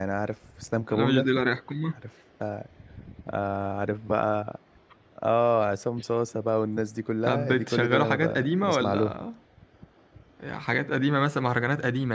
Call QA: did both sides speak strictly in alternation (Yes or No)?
No